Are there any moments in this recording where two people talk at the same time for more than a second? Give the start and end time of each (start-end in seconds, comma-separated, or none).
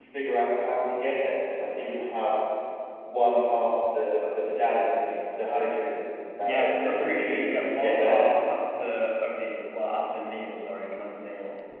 6.4-8.2